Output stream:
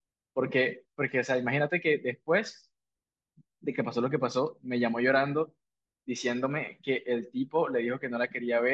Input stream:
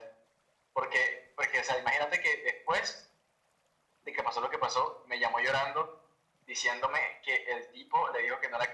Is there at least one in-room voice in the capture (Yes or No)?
No